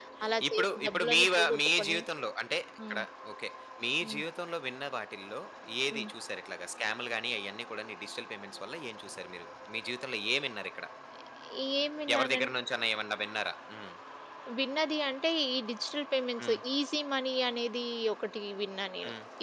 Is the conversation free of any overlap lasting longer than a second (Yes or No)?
No